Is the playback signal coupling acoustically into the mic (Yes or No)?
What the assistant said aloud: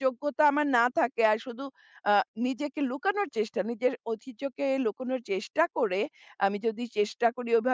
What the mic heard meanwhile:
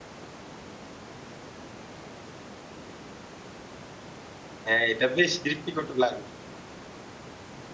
No